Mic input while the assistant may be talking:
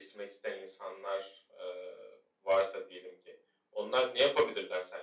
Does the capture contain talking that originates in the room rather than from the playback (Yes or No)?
No